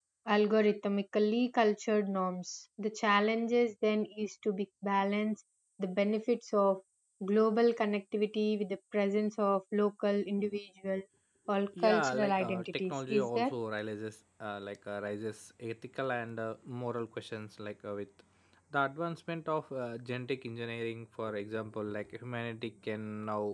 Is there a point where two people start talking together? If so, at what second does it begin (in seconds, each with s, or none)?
11.8 s